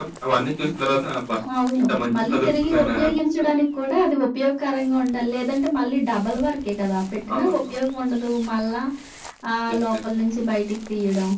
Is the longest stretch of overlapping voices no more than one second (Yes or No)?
No